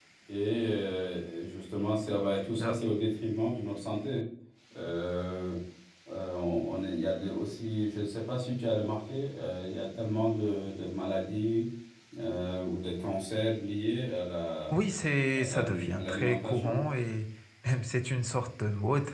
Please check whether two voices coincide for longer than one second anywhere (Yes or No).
Yes